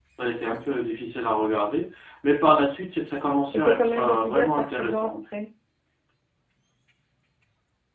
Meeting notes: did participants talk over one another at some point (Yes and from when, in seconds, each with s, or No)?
Yes, from 3.5 s